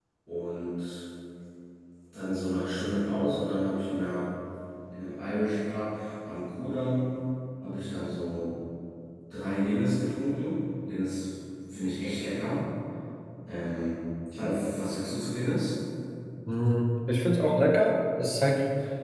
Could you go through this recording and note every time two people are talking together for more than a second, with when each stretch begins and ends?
none

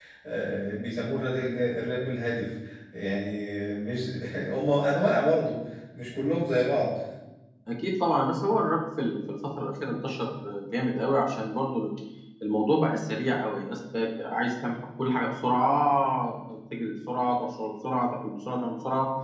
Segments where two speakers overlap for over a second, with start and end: none

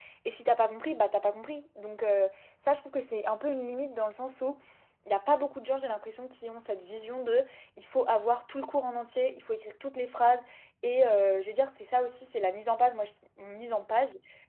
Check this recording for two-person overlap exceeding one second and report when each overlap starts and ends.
none

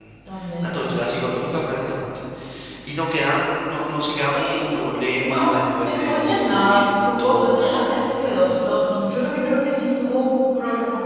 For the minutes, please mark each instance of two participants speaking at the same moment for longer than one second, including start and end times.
5.2-8.6

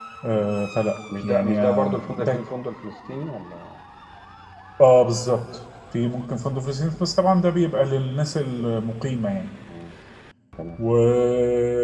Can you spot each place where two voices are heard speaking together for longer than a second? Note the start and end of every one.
1.2-2.5

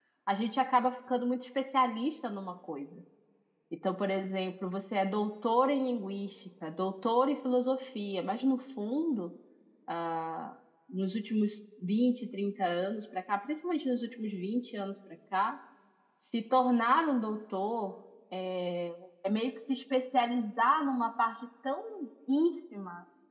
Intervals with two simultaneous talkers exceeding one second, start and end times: none

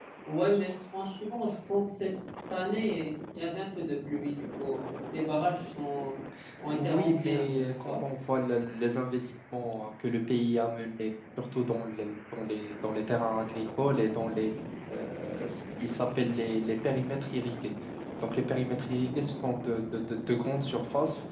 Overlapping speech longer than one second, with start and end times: 6.7-7.9

